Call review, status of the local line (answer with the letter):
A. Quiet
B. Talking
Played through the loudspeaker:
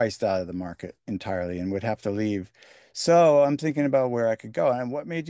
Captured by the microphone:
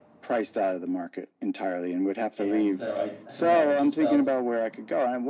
B